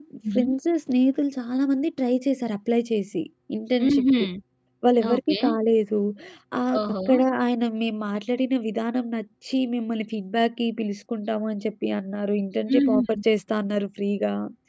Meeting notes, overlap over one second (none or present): none